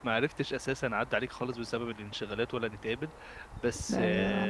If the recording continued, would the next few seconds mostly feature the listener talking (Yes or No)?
No